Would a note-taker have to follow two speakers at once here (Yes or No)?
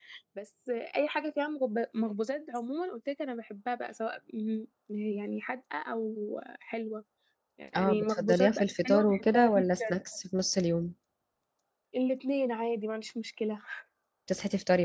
Yes